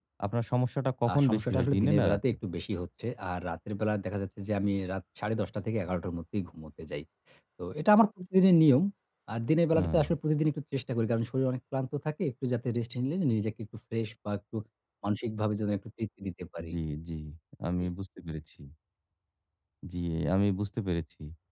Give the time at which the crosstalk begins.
1.1 s

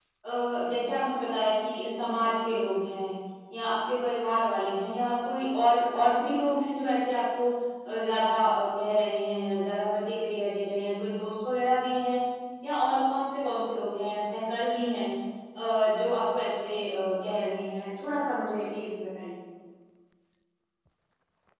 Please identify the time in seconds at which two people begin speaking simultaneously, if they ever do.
none

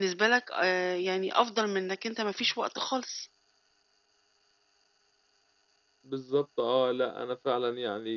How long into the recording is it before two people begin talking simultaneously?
none

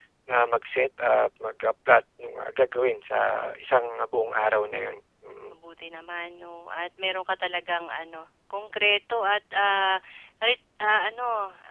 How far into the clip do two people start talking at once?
none

